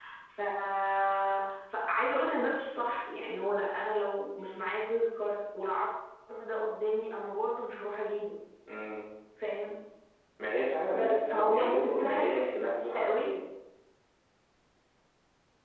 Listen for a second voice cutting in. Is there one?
Yes, from 10.9 s

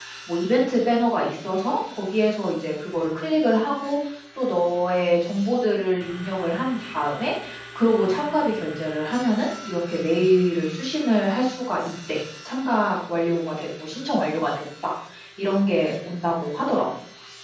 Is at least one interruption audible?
No

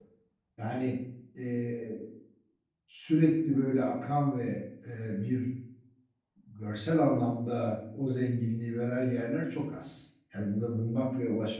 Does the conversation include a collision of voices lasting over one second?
No

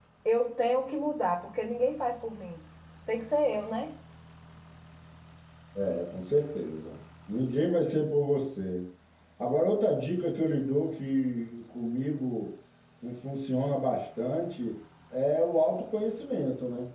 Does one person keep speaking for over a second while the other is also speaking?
No

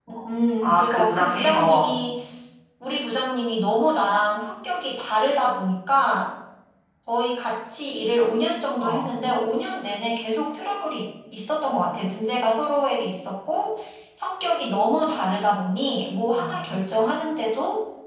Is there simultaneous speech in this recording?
Yes, from 0.6 s

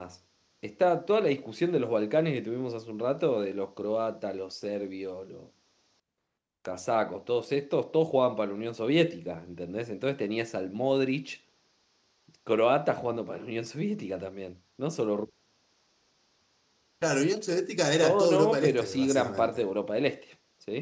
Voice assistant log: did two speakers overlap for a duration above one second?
Yes, from 18.0 s

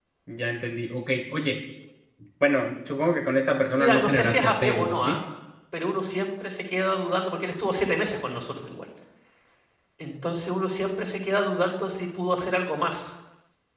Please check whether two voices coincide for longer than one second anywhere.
Yes, from 3.8 s

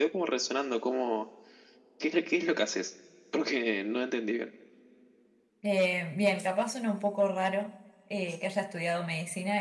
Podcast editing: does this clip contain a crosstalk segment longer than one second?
No

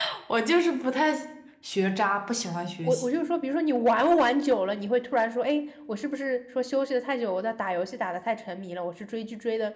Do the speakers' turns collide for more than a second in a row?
No

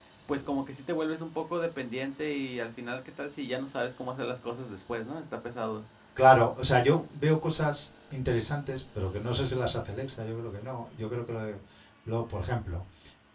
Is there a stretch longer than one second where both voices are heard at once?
No

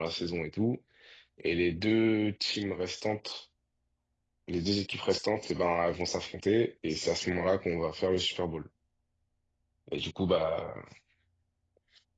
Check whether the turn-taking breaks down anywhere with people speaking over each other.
No

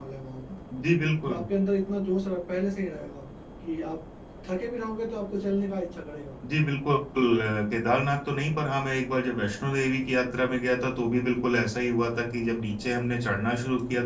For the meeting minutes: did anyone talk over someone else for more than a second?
No

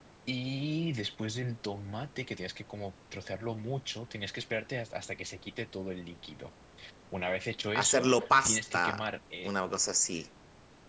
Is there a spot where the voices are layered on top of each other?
Yes, from 7.8 s

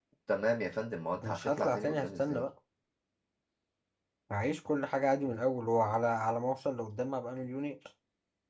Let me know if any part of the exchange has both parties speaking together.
Yes, from 1.2 s

